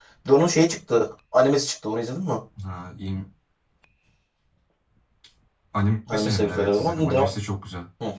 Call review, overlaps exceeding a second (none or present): present